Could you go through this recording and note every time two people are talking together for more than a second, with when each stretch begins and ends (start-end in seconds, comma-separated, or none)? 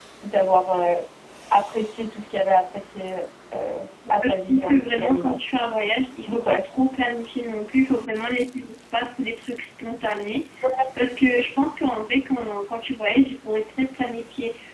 4.1-5.4